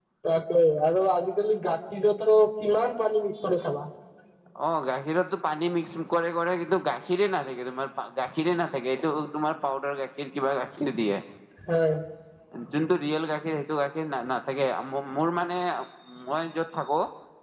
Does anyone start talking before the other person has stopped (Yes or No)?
No